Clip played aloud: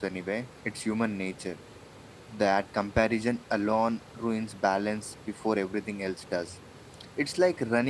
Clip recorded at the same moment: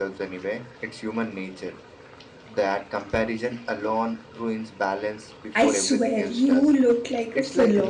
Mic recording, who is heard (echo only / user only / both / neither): both